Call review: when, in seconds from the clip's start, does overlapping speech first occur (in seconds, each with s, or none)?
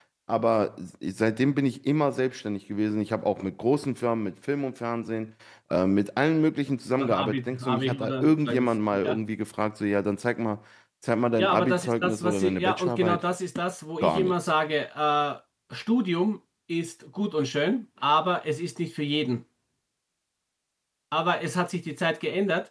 7.0 s